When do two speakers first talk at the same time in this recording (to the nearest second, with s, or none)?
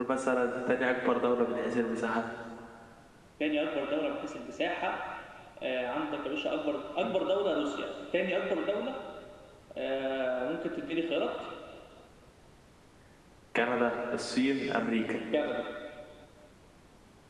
none